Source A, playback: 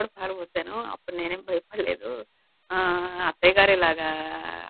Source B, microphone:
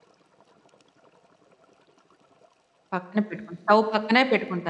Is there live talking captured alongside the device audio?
Yes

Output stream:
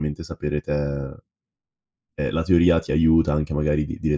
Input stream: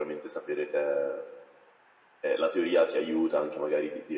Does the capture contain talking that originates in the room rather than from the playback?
No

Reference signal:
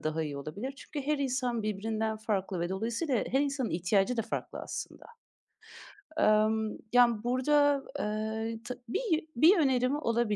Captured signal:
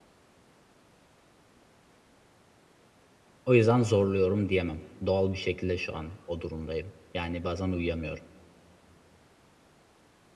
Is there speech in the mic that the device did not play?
Yes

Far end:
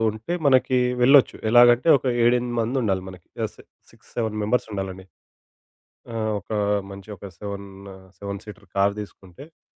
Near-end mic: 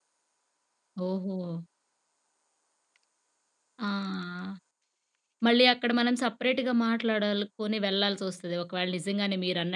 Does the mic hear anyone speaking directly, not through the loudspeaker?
Yes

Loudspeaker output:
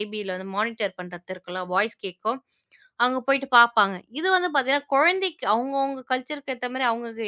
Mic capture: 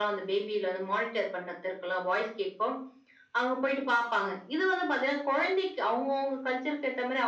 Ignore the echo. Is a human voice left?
No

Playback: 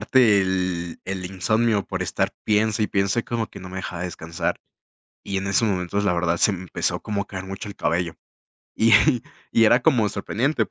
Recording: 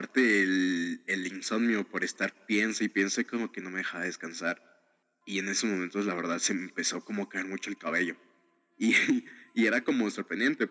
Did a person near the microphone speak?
No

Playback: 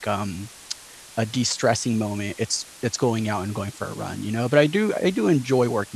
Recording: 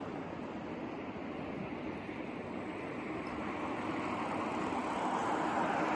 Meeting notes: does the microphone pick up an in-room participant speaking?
No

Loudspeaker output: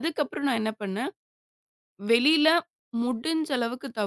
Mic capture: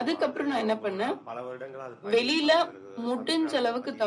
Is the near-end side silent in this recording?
No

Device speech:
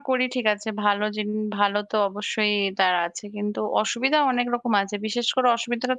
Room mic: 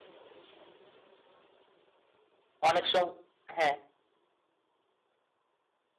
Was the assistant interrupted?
Yes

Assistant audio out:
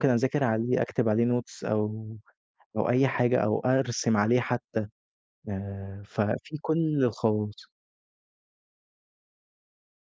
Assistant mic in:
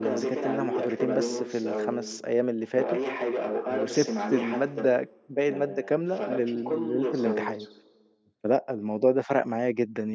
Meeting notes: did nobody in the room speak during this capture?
No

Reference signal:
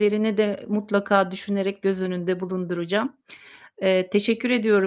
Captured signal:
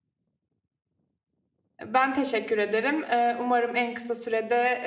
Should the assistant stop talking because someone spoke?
Yes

